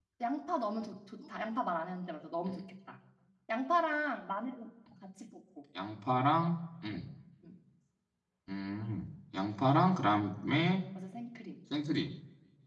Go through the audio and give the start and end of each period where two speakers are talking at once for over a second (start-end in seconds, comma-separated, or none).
none